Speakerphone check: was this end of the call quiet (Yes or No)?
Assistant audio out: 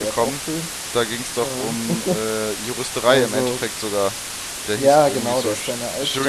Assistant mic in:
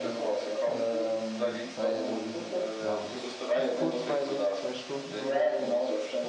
No